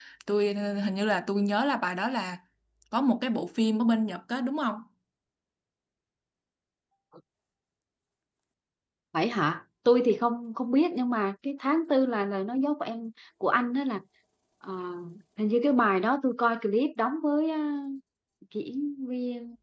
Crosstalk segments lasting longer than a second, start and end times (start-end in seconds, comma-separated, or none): none